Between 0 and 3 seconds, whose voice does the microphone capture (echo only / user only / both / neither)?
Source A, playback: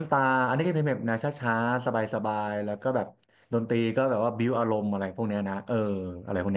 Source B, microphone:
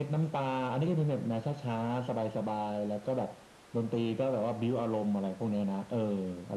echo only